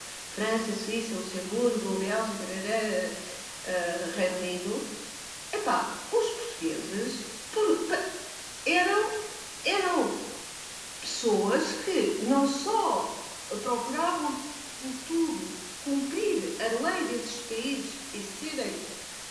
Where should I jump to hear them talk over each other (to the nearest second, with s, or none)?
none